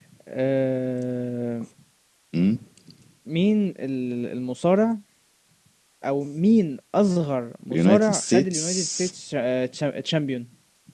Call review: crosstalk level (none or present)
present